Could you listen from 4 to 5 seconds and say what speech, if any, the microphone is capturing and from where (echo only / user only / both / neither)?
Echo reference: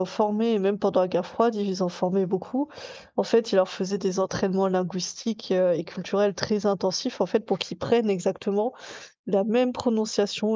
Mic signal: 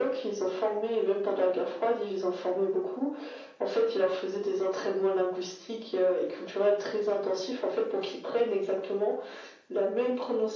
echo only